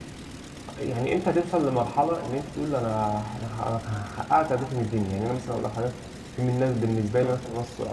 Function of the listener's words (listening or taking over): listening